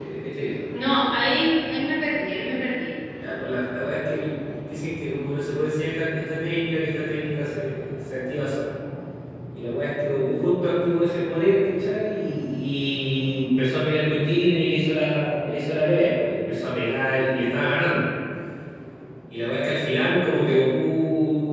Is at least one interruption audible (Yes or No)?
No